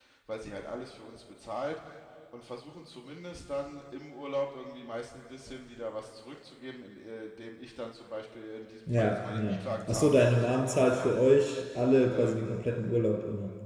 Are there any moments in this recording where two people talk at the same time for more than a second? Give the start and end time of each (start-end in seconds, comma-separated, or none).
8.9-11.1